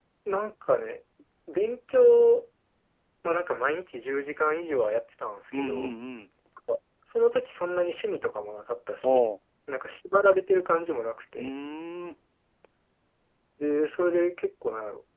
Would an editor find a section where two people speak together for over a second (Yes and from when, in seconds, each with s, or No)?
No